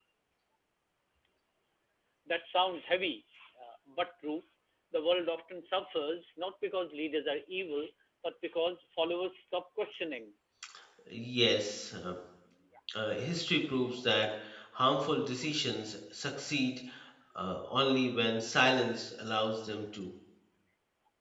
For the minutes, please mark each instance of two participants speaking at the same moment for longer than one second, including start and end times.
none

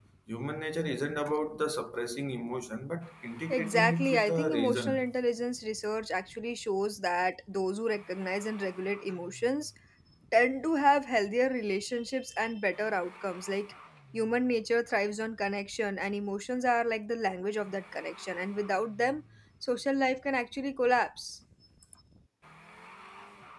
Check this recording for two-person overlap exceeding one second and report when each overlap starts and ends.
3.5-5.0

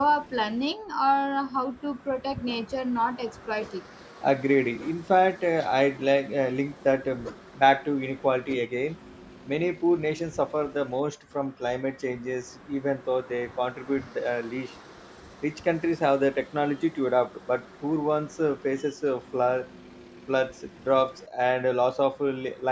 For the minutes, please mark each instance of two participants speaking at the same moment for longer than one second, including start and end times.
none

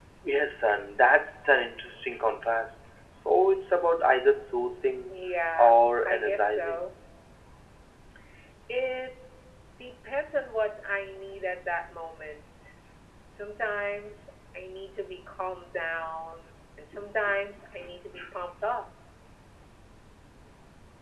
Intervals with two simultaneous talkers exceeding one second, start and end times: 5.6-6.9

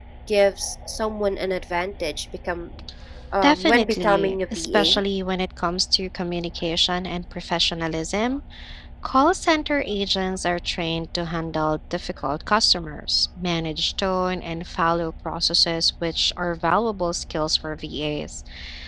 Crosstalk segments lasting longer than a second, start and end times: 3.4-4.9

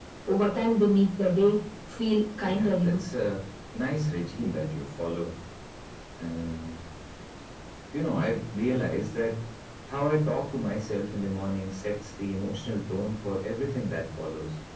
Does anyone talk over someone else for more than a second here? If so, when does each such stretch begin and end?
none

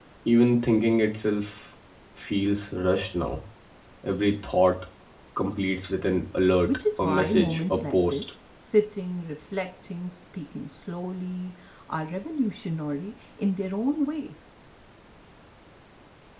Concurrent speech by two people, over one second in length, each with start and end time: 6.7-8.2

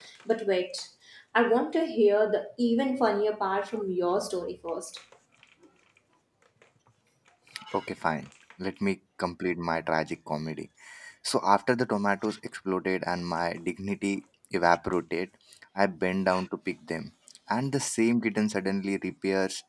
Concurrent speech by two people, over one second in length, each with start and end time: none

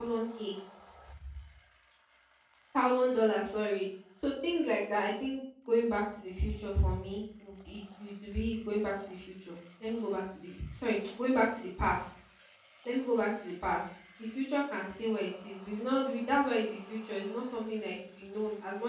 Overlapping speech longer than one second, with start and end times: none

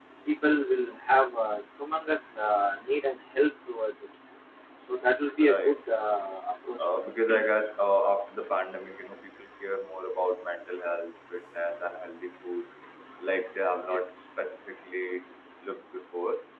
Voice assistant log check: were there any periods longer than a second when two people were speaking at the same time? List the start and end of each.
none

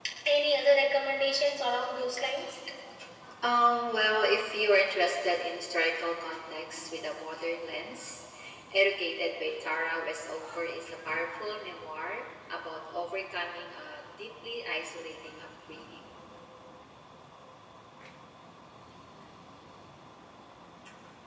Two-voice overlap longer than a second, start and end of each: none

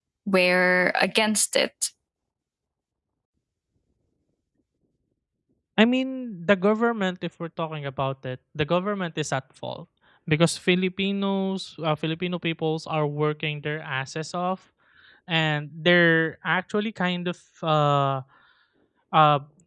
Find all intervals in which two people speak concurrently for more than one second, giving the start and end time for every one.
none

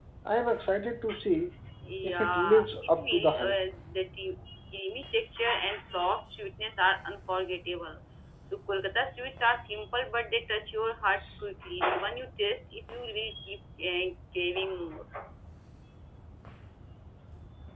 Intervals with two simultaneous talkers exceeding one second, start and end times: 2.0-3.6

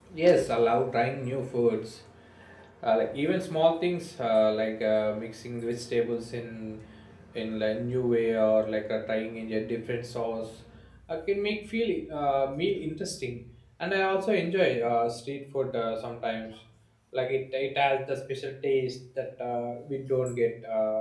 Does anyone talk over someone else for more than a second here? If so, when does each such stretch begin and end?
none

